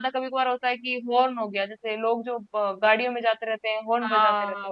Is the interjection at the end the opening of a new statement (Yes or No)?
Yes